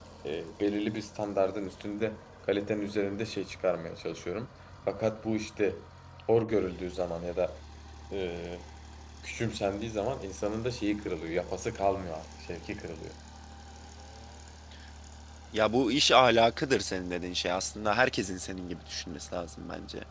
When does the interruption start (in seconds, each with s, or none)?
none